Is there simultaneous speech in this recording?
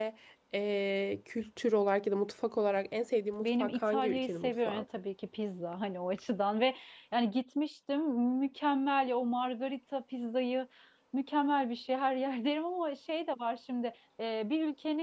Yes, from 3.4 s

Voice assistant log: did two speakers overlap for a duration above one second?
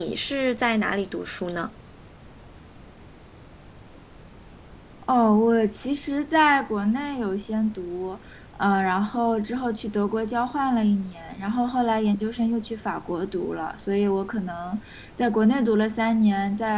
No

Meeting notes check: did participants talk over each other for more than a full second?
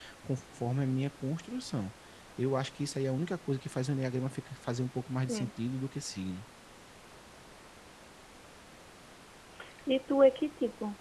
No

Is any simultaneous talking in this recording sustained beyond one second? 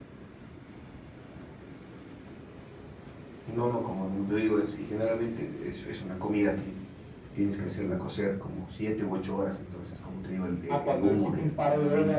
Yes, from 10.7 s

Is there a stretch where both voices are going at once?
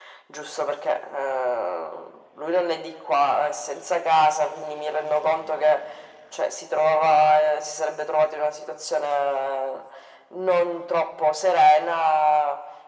No

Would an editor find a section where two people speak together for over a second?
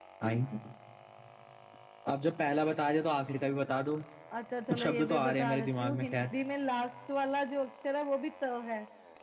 Yes, from 4.7 s

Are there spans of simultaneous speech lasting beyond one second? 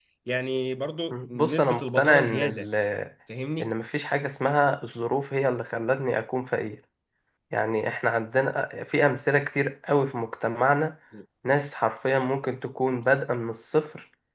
Yes, from 1.1 s

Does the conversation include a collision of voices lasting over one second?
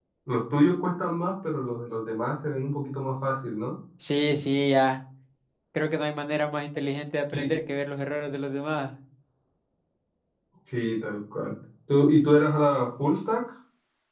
No

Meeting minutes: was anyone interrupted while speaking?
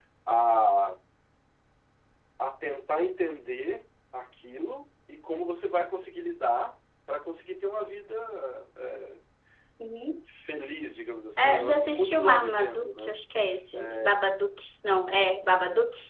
Yes, from 11.4 s

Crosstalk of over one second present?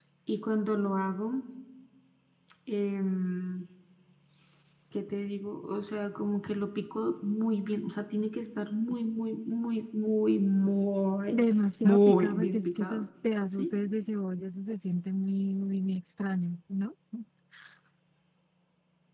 Yes, from 11.8 s

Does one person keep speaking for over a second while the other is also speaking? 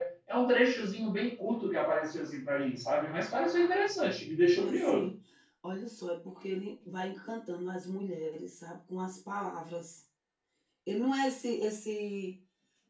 No

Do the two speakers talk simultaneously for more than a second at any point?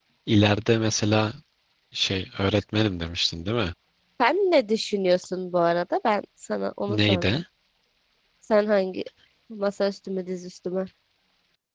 No

